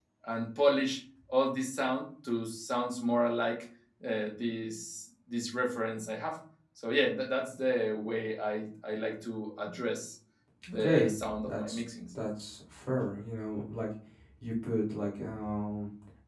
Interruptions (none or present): present